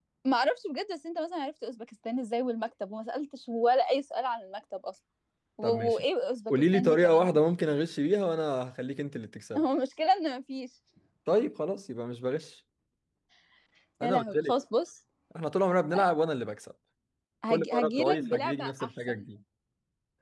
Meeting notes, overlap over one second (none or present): present